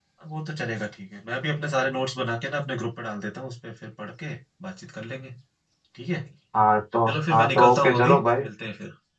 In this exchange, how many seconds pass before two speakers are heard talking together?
7.1 s

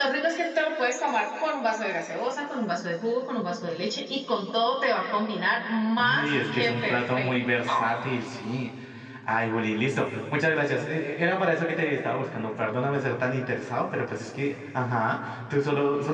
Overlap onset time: 6.0 s

